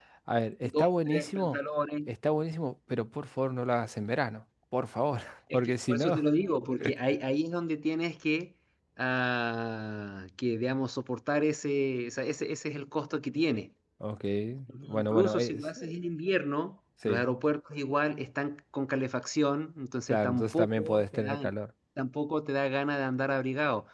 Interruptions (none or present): present